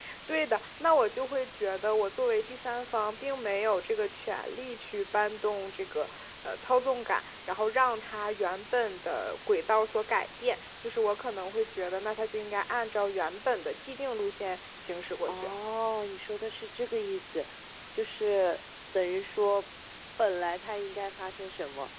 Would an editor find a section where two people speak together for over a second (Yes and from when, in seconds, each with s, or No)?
No